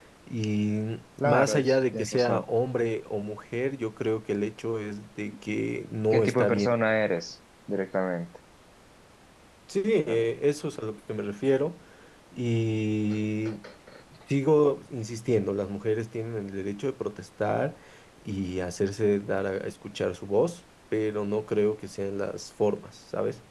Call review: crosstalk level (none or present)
present